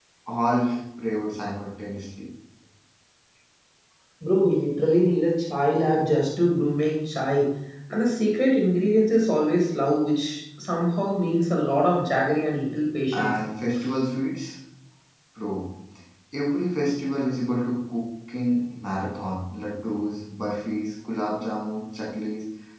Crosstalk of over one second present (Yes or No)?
No